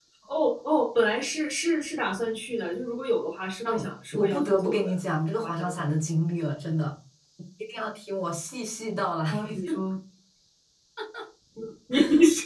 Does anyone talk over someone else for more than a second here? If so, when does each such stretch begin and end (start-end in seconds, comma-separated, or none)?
3.6-5.0